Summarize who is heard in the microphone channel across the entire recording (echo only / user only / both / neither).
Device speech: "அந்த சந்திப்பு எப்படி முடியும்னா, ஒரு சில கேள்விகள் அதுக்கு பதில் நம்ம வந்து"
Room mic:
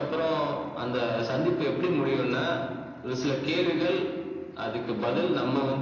echo only